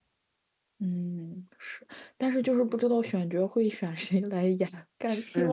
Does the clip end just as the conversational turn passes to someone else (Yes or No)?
No